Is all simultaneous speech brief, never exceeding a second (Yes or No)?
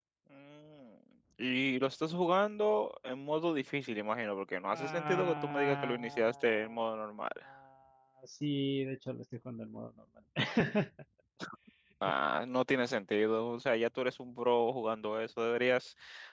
No